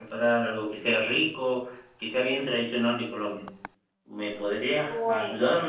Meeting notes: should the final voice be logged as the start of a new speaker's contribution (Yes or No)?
Yes